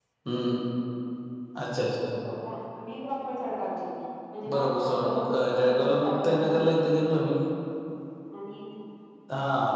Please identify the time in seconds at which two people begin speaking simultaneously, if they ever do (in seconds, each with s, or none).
4.5 s